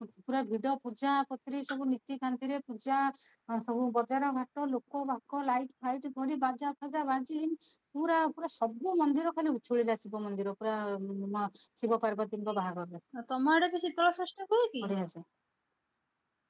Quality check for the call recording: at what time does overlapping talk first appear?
none

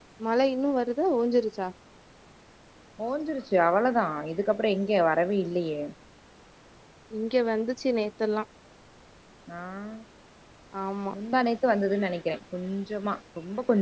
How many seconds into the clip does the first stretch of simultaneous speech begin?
none

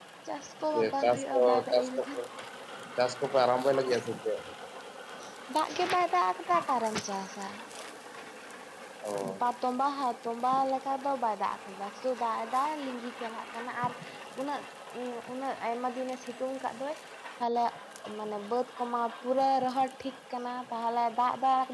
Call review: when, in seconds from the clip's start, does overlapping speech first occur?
1 s

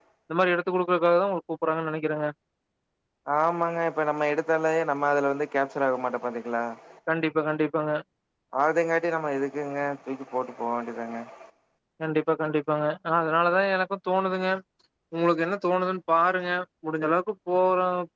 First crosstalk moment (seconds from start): none

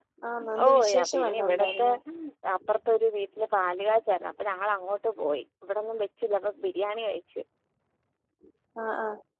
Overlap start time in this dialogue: 1 s

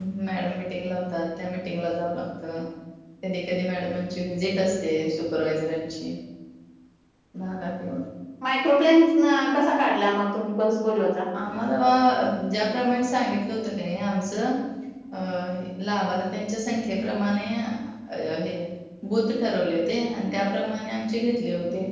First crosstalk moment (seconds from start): none

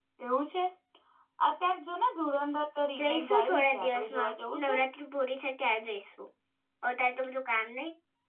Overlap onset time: 3 s

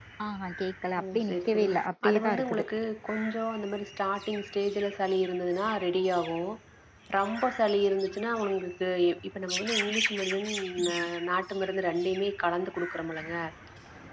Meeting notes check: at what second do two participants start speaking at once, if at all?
1 s

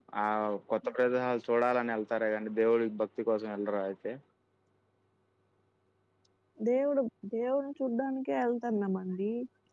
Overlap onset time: none

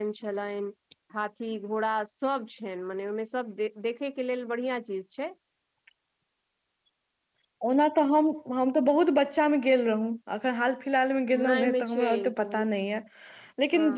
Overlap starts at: 11 s

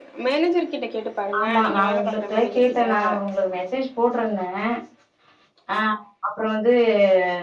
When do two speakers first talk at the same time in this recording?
1 s

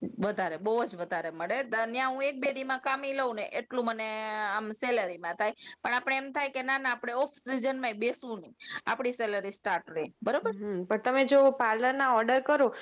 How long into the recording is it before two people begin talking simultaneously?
none

